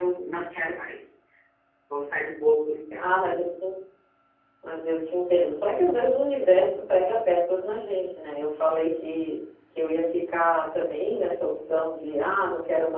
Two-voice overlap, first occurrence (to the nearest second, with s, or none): none